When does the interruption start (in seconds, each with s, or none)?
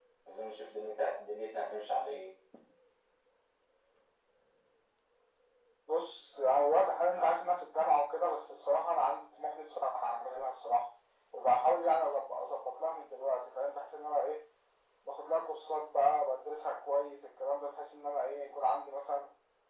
none